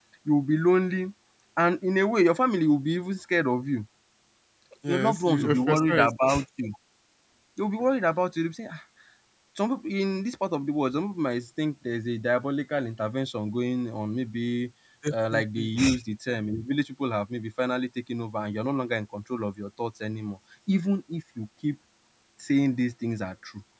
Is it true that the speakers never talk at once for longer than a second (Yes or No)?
No